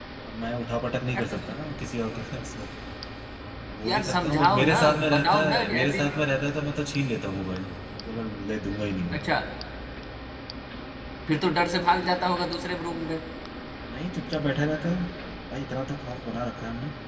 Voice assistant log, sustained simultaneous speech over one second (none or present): present